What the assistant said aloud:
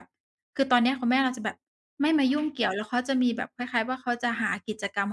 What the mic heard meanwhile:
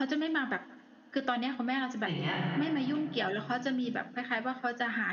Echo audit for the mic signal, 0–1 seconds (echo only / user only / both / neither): echo only